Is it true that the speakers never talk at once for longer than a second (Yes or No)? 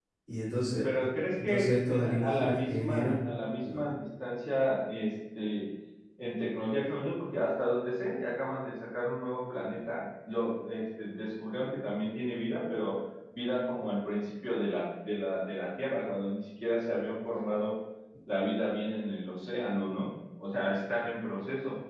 No